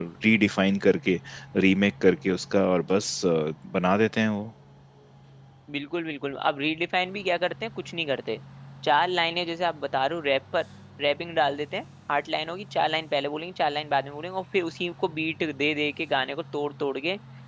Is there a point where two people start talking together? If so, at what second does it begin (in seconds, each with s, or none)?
none